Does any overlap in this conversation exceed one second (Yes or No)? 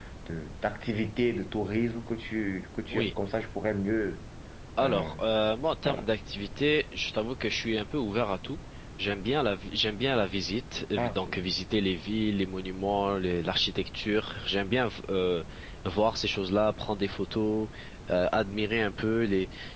No